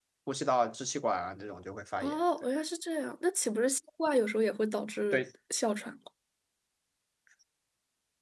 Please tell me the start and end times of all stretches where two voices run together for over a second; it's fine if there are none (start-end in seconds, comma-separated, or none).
none